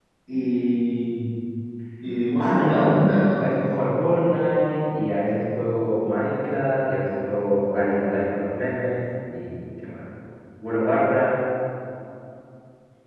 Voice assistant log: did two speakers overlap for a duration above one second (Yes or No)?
Yes